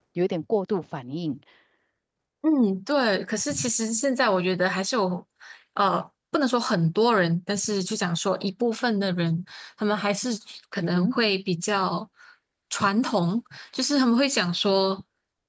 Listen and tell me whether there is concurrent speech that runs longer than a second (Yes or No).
No